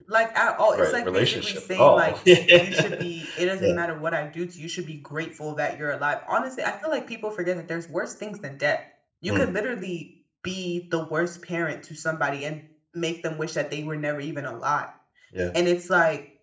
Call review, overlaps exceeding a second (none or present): present